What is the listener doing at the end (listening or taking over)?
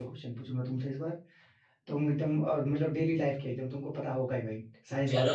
listening